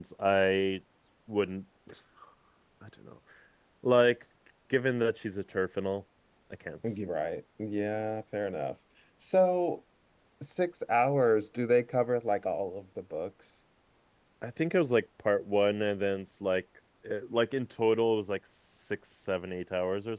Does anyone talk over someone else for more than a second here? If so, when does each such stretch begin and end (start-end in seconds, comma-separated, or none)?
none